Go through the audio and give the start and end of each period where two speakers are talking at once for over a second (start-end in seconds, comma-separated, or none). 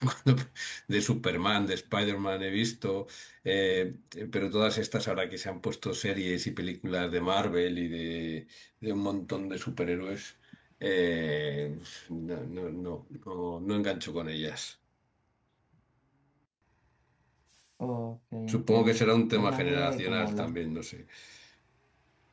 18.5-20.5